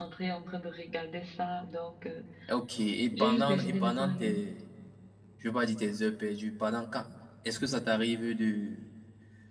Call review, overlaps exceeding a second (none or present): present